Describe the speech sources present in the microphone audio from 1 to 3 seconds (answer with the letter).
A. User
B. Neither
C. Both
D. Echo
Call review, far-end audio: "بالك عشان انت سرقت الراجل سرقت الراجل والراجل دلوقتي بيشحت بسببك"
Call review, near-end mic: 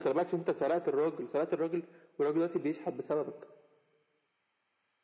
D